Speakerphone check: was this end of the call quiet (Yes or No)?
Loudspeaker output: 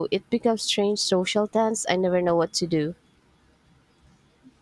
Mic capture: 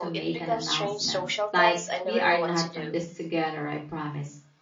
No